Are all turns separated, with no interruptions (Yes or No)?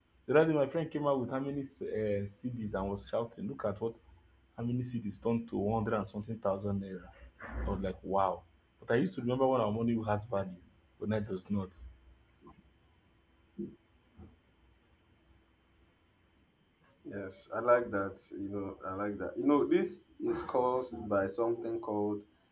Yes